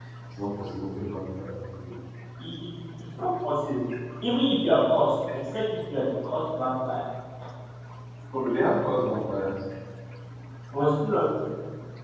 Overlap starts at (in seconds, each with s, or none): none